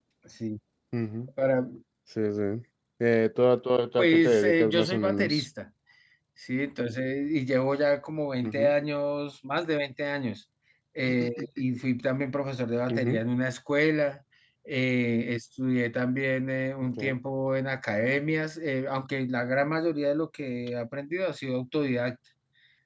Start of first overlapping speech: 4.0 s

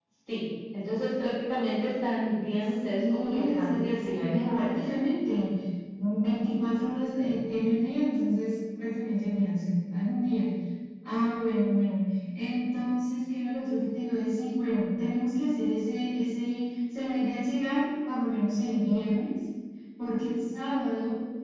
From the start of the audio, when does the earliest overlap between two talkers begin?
3.0 s

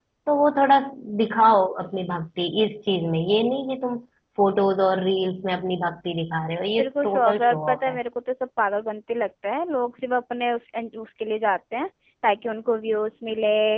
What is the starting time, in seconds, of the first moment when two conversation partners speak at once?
6.8 s

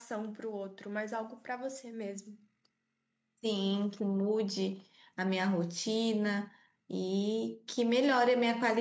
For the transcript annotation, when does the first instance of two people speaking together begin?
none

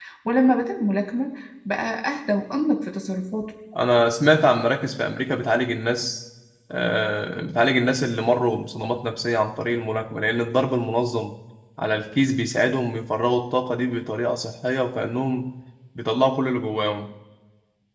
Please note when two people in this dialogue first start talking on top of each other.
none

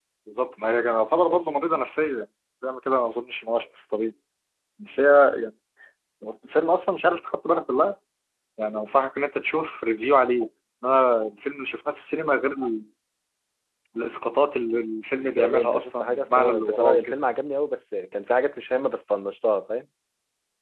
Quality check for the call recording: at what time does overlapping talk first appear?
15.2 s

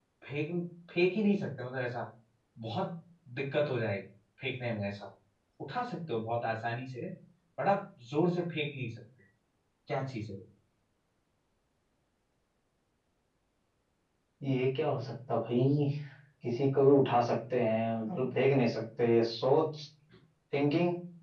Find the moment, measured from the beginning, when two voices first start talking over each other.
none

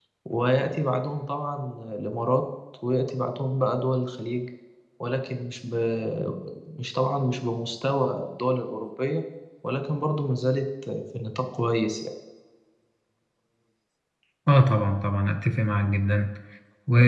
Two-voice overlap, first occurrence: none

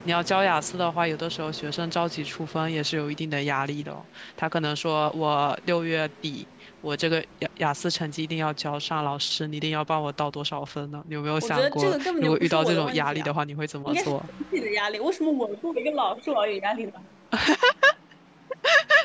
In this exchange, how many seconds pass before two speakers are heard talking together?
11.4 s

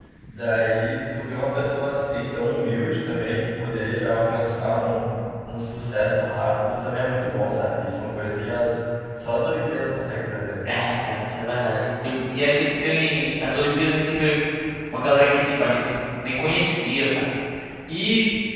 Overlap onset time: none

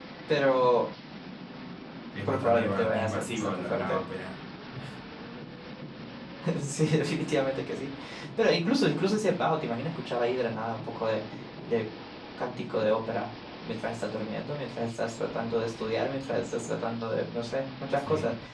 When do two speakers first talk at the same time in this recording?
2.2 s

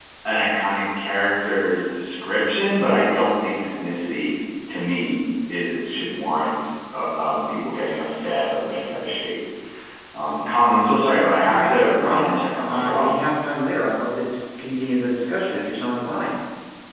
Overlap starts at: 11.4 s

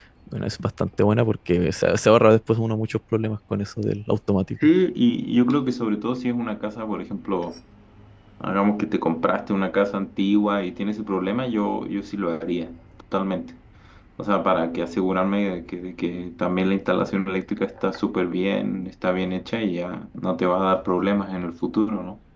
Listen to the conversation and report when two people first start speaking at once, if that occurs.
none

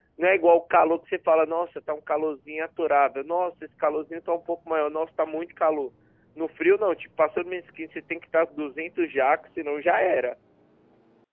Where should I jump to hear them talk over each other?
none

